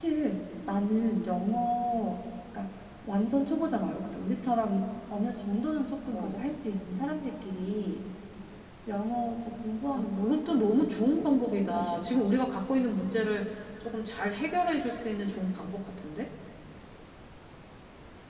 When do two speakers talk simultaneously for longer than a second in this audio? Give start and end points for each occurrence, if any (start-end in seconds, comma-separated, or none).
9.9-11.3